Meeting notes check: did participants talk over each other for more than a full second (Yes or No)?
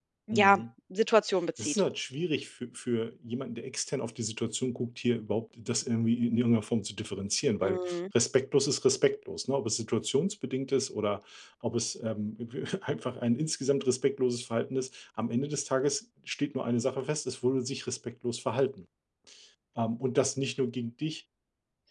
No